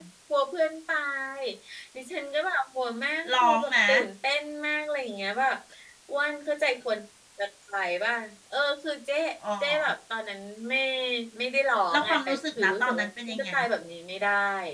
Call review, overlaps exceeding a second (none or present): present